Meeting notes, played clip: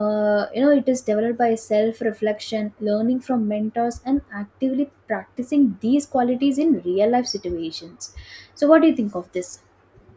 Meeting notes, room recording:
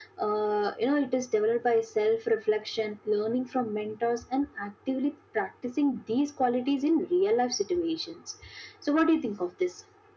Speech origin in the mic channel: echo only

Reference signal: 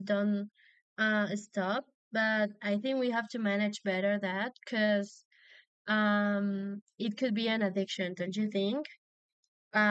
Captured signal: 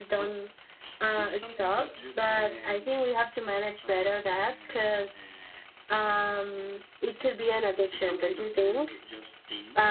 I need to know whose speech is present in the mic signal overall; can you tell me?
both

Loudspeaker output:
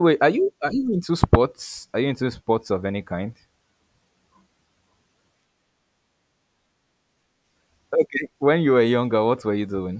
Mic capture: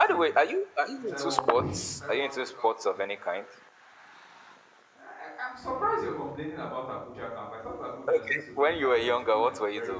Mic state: both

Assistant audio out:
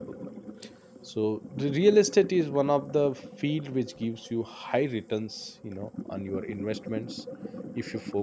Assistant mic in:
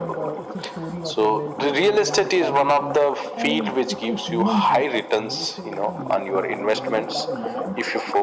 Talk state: both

